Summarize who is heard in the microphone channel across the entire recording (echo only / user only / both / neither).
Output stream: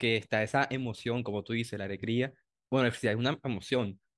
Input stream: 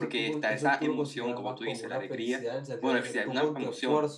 both